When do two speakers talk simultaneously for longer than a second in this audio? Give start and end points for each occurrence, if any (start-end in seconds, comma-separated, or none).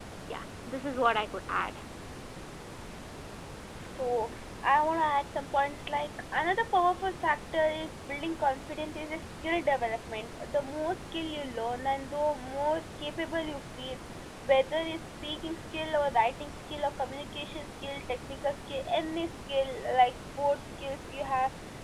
none